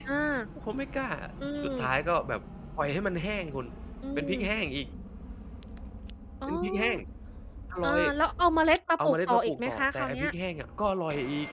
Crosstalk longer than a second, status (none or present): present